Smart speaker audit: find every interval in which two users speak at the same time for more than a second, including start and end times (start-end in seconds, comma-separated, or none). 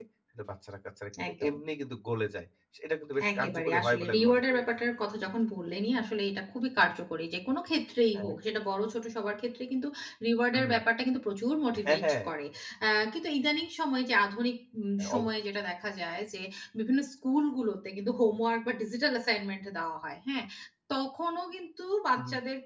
3.4-4.6